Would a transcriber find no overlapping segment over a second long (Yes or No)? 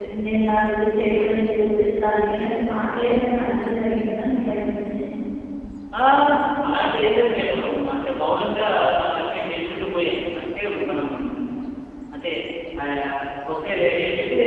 Yes